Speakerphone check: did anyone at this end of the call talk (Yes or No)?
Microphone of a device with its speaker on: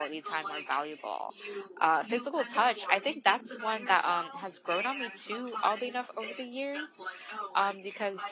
Yes